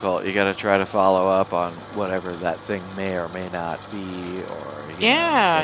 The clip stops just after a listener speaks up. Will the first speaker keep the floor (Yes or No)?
No